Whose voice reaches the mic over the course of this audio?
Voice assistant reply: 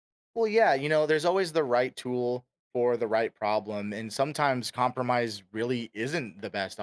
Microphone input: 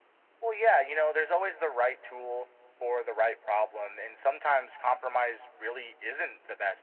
echo only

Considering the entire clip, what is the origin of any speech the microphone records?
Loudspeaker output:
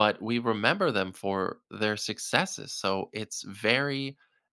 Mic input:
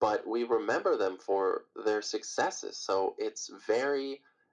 echo only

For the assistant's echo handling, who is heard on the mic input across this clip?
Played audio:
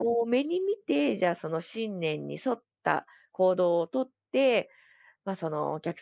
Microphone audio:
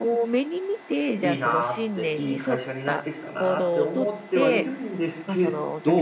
both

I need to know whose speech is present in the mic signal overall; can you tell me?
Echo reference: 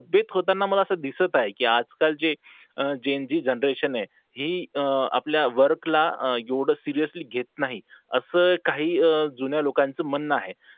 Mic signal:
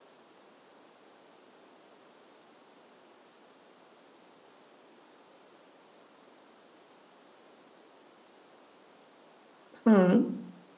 user only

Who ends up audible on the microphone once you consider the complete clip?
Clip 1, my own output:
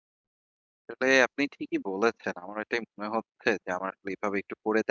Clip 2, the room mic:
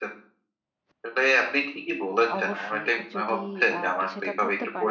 both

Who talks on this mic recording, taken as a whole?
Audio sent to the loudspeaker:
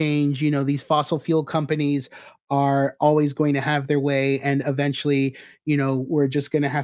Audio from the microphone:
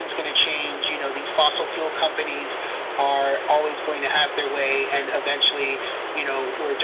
echo only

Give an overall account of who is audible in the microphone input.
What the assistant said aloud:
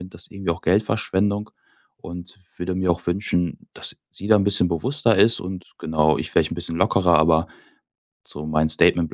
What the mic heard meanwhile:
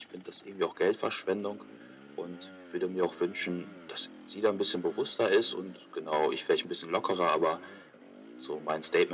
echo only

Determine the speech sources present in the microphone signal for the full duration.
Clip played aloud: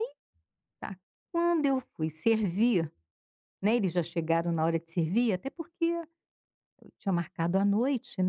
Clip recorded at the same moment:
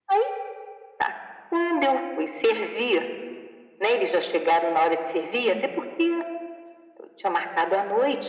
both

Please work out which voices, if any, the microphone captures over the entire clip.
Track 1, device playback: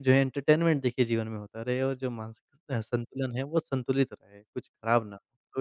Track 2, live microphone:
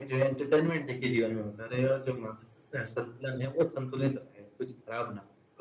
echo only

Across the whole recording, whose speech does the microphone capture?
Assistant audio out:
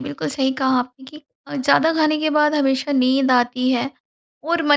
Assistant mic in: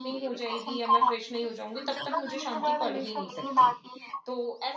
both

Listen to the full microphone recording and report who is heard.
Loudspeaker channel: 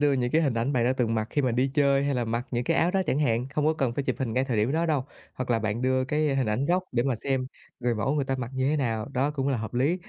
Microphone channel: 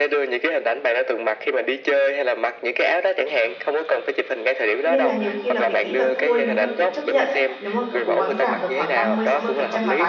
both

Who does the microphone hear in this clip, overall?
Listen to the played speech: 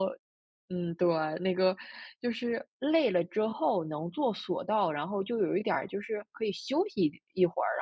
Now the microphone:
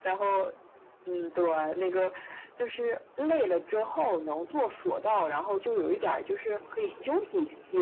echo only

